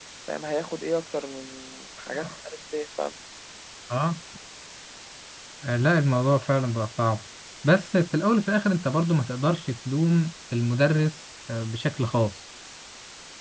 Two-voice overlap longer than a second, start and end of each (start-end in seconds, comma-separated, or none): none